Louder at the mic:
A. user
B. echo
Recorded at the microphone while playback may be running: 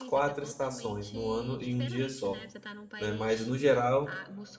A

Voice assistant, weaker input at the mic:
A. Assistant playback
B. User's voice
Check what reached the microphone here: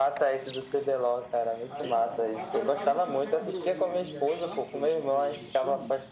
B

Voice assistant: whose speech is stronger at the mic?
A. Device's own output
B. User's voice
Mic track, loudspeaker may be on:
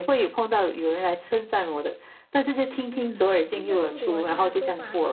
A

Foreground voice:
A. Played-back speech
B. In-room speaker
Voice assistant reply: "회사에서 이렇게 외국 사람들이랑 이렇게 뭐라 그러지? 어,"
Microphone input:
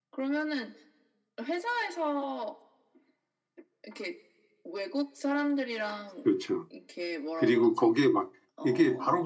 B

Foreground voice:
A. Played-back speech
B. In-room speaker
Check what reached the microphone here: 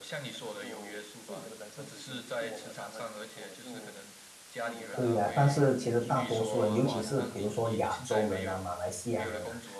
B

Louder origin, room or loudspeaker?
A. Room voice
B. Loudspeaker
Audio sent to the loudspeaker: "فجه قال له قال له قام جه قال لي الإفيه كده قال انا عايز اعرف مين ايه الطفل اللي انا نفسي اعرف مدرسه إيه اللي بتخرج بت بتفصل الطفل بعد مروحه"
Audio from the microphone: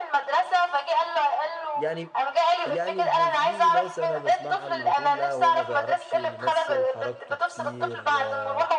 B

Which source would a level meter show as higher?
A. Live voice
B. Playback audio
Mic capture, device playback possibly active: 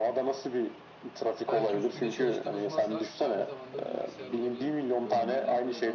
B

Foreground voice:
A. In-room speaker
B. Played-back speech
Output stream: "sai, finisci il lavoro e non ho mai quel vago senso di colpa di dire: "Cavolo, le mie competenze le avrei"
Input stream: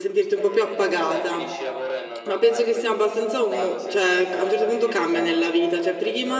A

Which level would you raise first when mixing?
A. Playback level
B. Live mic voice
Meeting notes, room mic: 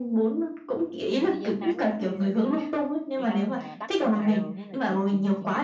B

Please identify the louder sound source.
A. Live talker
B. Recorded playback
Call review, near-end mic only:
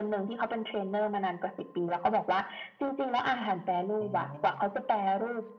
B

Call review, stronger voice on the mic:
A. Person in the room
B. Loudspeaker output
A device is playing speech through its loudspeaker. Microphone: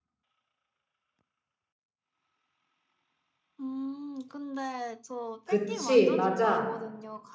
A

